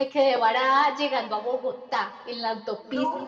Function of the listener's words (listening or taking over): listening